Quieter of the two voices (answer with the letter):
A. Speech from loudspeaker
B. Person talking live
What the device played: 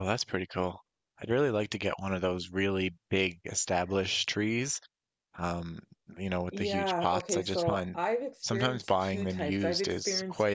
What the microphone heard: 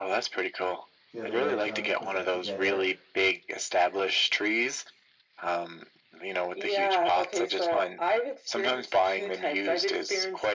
B